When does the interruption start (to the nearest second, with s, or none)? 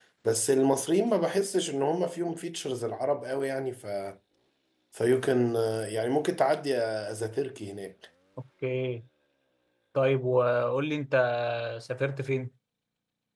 none